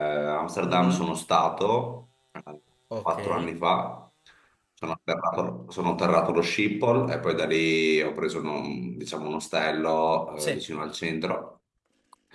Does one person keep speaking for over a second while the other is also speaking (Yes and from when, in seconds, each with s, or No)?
No